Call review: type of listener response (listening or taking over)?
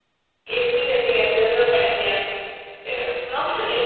listening